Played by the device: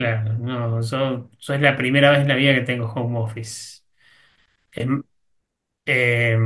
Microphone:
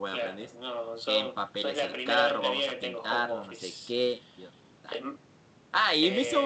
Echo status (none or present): present